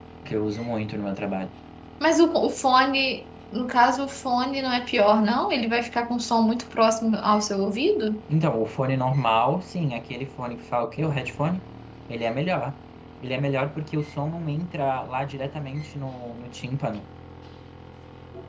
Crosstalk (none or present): none